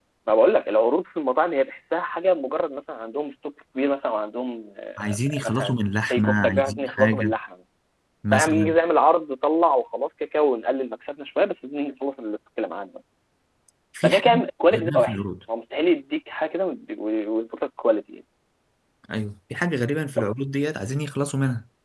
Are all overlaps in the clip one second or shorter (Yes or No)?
No